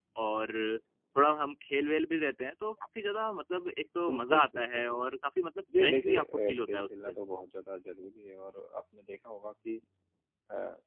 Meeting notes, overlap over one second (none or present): present